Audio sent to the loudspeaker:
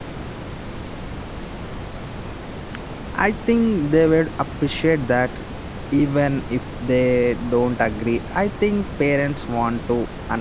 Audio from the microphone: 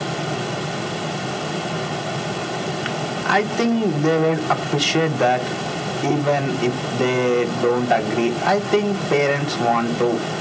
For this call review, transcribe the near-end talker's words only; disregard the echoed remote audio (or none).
none